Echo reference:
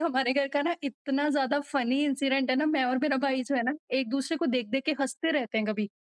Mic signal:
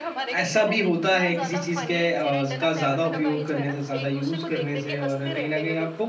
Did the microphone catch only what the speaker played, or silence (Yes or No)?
No